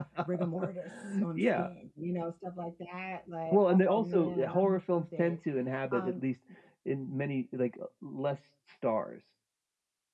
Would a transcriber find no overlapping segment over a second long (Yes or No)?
No